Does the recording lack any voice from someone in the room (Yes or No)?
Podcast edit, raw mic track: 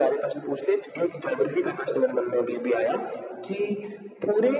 Yes